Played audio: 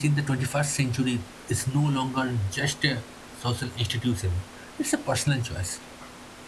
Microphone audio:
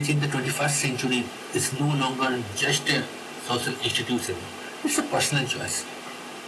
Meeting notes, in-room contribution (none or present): none